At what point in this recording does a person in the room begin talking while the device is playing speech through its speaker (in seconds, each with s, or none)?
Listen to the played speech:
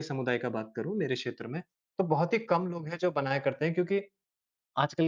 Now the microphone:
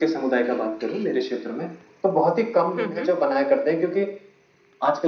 2.8 s